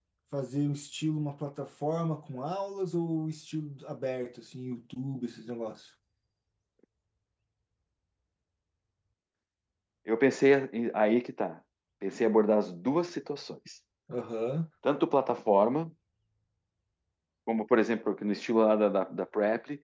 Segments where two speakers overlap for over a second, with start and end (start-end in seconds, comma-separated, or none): none